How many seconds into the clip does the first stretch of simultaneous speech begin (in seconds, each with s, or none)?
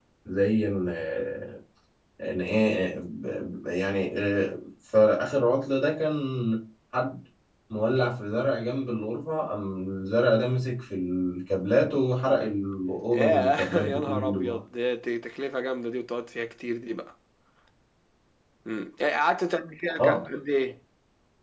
13.1 s